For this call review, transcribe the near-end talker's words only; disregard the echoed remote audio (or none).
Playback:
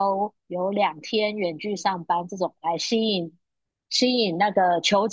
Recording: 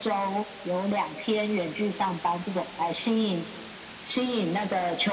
none